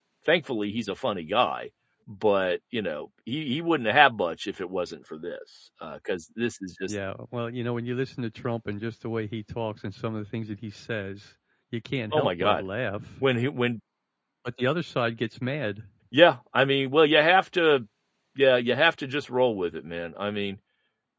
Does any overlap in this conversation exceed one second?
No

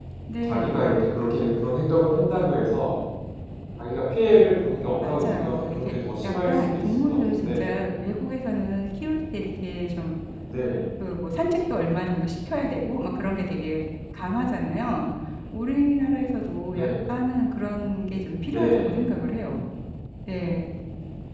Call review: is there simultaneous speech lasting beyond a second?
Yes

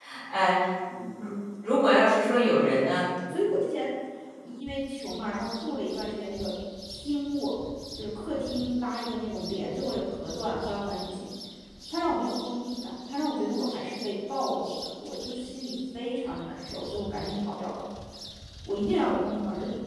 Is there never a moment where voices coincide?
Yes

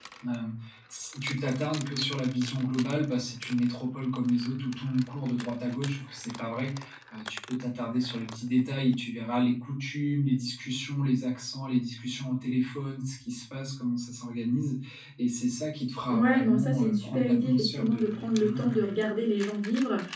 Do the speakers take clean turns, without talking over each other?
No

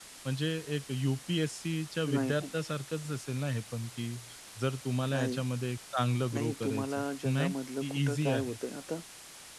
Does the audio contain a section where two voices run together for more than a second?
Yes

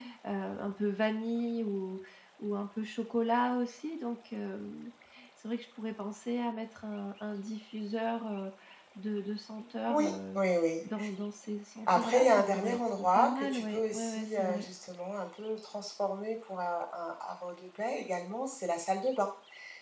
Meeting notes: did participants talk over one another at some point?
Yes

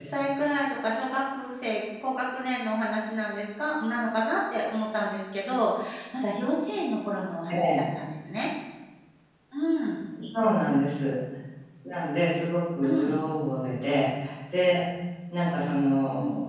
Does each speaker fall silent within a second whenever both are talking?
Yes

